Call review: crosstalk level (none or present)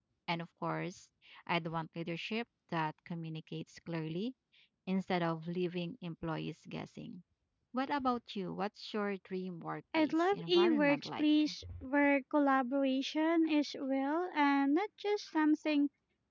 present